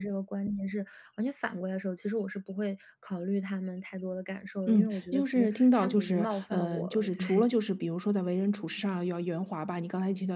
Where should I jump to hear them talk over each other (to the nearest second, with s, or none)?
5 s